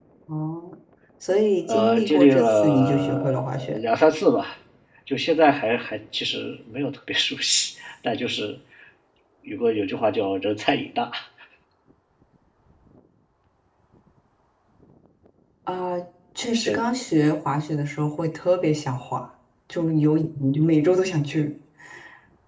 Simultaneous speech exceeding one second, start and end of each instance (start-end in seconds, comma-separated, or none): 1.7-3.8